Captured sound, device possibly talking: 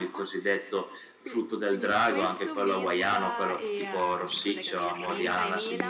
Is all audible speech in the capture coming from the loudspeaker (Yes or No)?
No